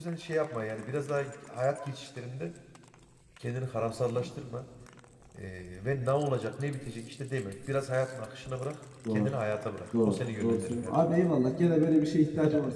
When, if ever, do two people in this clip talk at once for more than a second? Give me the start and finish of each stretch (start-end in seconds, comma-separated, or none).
10.0-11.2